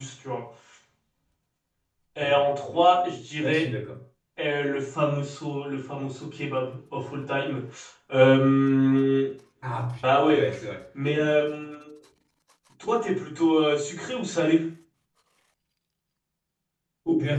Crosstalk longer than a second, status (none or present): none